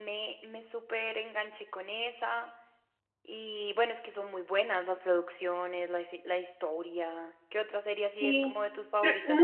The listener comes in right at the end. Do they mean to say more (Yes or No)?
Yes